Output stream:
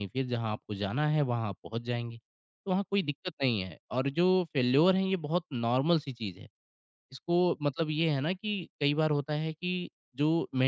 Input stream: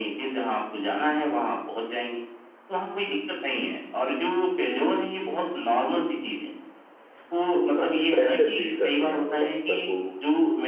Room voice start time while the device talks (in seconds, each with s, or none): 7.5 s